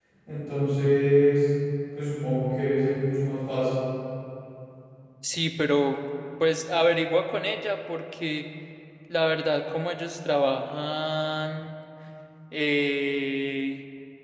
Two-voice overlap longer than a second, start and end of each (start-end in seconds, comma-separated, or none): none